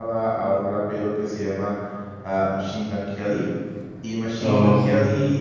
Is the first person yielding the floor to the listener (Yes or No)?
No